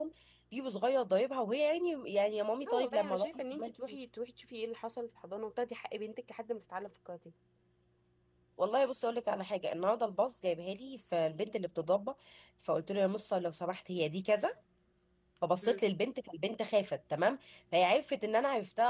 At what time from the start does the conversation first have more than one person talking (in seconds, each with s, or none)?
2.6 s